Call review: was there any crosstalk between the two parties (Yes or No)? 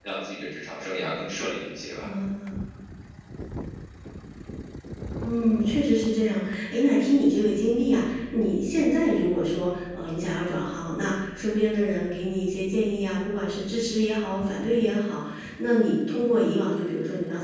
No